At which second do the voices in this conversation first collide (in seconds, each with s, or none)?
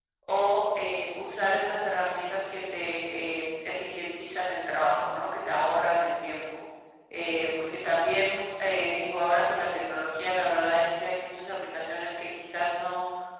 none